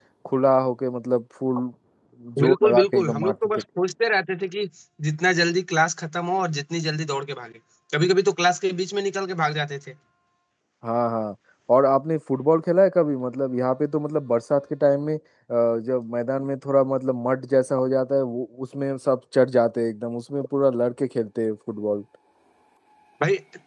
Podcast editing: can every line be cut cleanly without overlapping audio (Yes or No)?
No